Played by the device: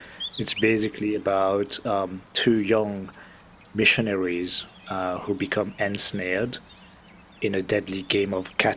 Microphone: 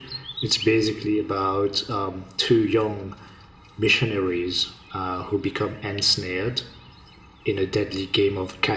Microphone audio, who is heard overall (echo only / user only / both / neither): echo only